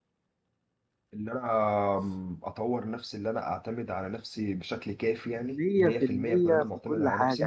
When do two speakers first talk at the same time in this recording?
5 s

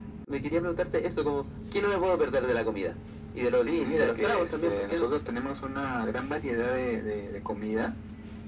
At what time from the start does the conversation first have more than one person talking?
4 s

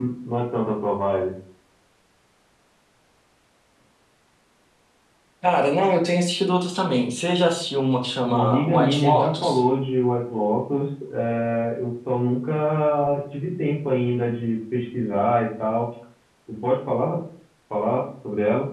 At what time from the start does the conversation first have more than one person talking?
8 s

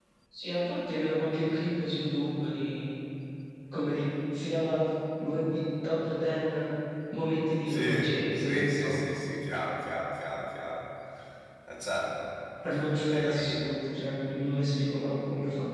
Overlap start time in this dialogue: 8 s

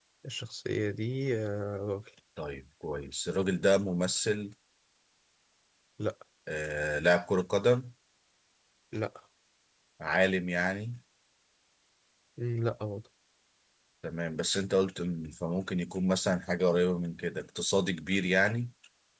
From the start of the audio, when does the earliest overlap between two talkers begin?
none

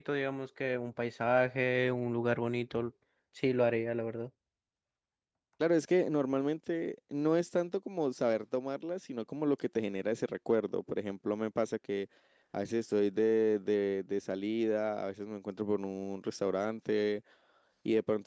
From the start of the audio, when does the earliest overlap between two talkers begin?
none

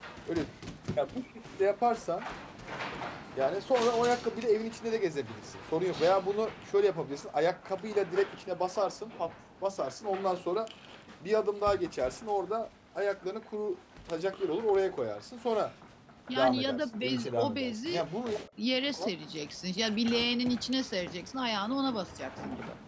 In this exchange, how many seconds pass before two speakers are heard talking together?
16 s

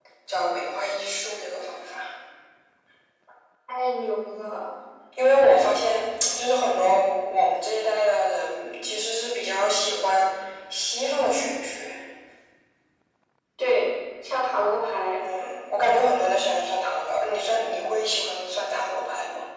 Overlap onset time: none

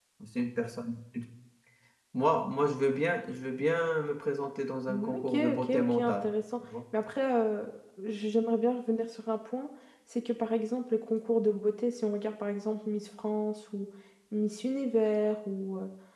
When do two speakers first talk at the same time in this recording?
5 s

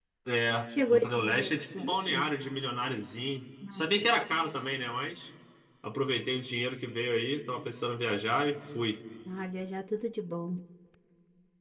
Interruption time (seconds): 1 s

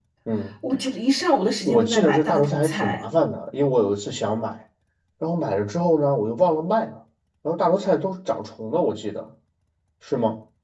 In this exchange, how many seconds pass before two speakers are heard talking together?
2 s

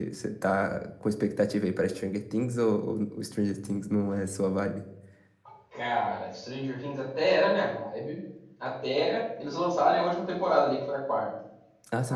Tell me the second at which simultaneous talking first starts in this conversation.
none

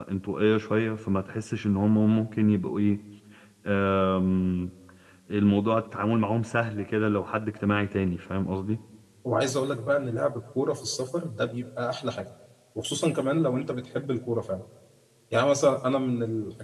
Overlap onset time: none

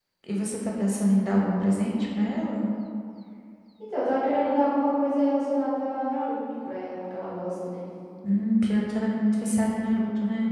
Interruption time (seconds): none

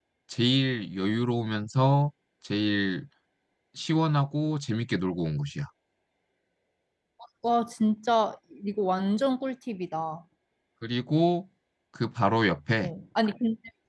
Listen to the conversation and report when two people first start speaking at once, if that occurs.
none

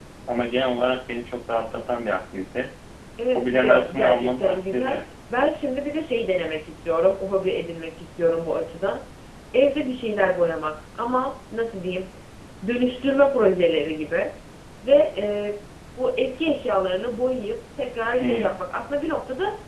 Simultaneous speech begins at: 3 s

